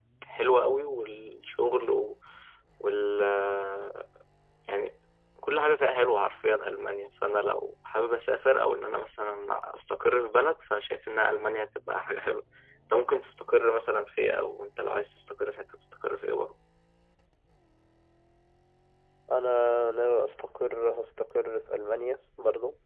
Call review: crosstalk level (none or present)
none